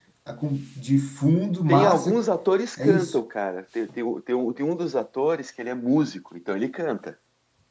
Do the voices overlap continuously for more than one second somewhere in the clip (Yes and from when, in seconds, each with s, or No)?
No